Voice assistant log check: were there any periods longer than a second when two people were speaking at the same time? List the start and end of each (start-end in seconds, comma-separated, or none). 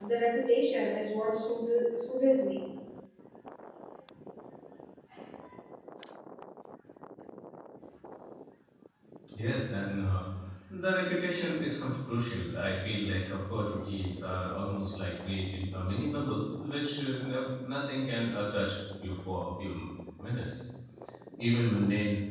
none